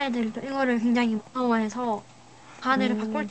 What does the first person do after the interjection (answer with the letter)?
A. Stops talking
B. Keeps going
B